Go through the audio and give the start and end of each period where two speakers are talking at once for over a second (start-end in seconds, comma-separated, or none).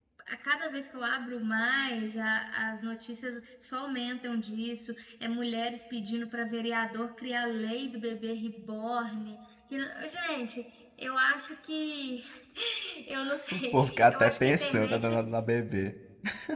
13.5-15.2